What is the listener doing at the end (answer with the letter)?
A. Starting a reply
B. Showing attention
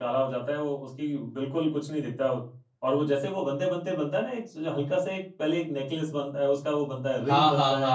A